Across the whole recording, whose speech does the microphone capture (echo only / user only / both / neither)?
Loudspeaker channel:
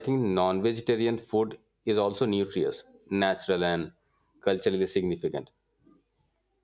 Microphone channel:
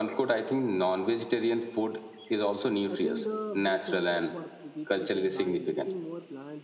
both